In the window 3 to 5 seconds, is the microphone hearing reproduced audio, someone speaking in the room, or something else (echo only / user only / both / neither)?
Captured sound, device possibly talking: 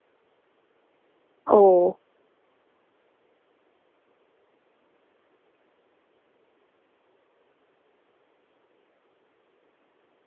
neither